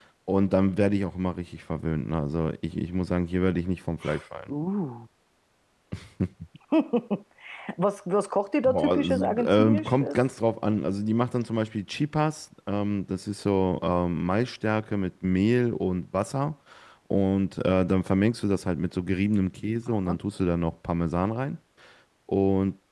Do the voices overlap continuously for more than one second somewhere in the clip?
Yes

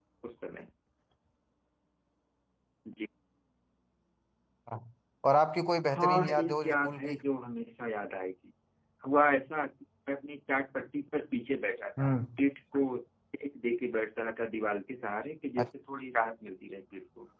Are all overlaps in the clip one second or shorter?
No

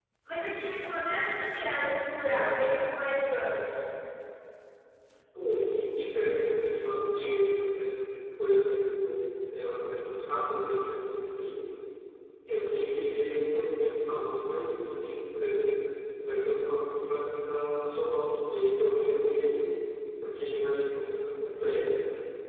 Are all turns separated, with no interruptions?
Yes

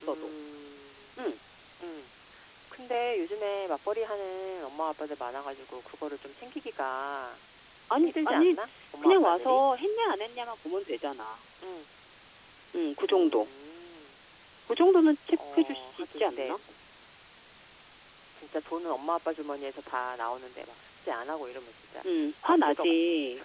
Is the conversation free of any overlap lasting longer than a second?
No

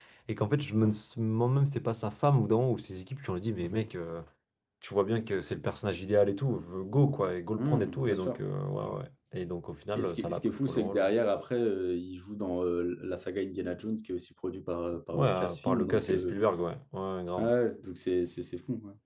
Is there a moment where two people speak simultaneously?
Yes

